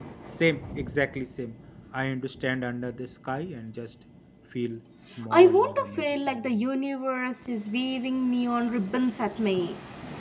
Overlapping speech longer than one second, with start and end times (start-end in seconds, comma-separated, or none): 5.3-6.7